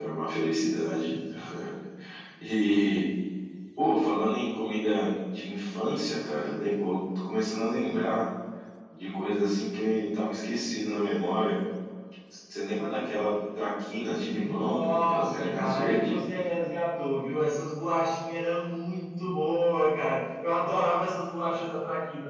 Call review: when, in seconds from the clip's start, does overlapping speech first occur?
14.3 s

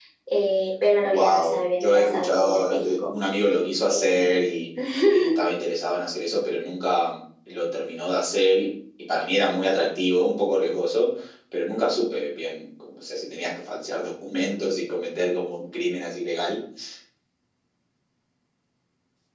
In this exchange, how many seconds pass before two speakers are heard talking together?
1.0 s

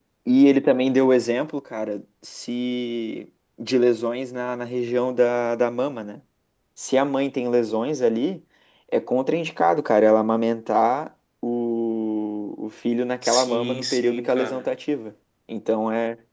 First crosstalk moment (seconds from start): 13.2 s

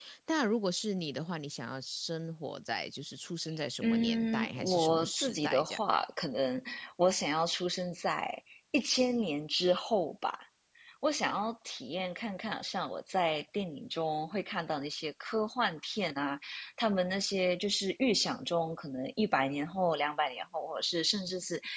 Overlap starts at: 3.8 s

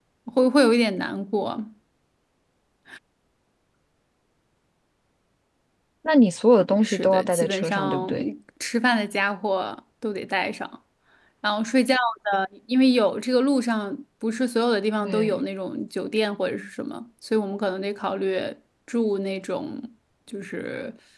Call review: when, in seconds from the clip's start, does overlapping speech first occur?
6.8 s

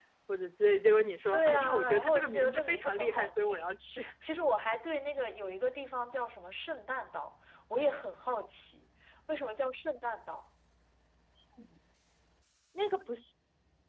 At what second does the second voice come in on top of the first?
1.3 s

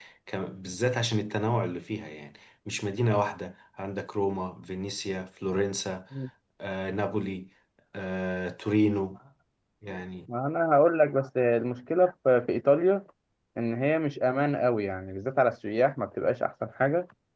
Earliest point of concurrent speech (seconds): none

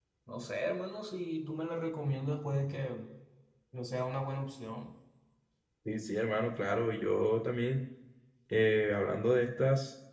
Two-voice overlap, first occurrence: none

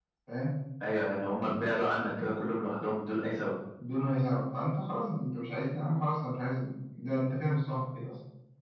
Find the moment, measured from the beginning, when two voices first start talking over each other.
none

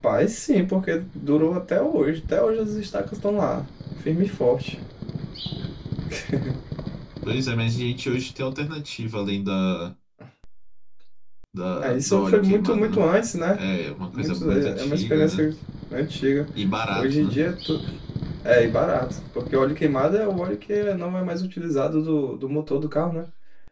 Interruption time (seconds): 11.8 s

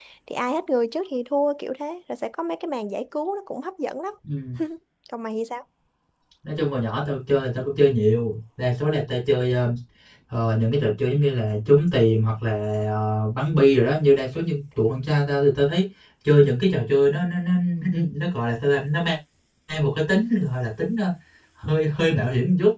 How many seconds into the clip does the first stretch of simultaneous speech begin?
none

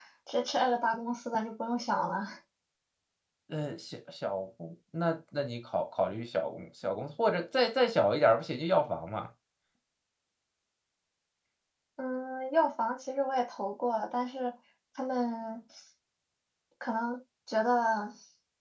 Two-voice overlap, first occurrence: none

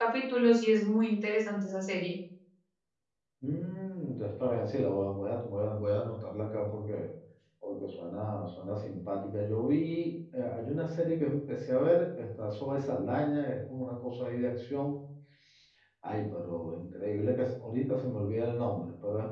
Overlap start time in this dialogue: none

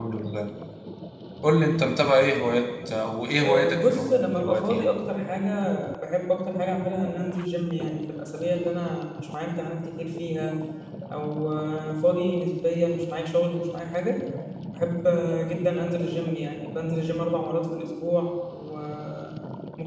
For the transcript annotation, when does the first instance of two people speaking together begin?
3.4 s

